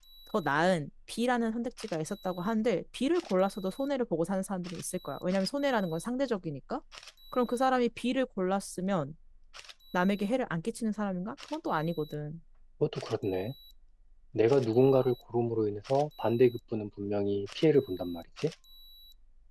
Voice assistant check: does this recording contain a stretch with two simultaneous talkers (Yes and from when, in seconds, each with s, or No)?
No